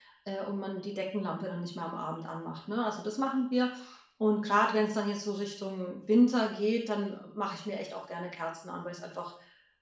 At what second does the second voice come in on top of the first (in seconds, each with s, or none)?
none